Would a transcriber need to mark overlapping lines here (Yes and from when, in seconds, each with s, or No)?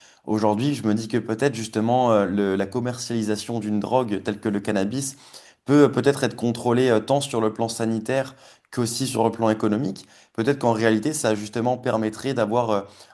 No